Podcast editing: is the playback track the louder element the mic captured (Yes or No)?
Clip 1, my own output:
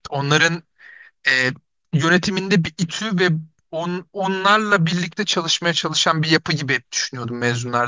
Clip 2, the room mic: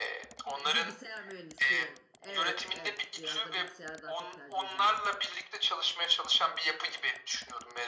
Yes